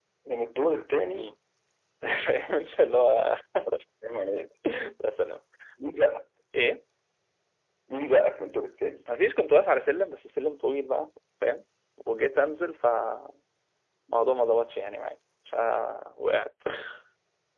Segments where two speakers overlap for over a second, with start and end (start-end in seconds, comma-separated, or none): none